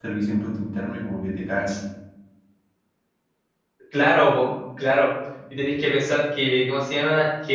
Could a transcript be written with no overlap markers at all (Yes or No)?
Yes